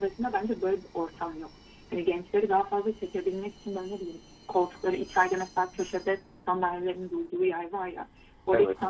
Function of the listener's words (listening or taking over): listening